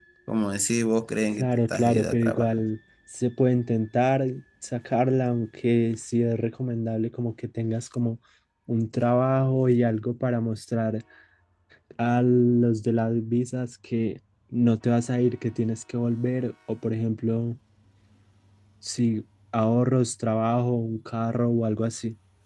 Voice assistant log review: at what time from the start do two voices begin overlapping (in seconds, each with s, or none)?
1.3 s